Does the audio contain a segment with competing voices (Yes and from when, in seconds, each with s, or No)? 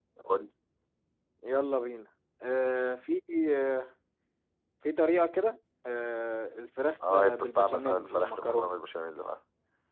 Yes, from 7.0 s